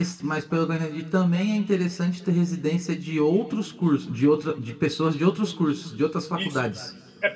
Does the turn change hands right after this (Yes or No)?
Yes